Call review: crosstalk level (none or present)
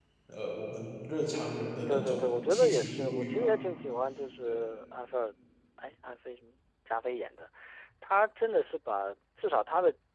present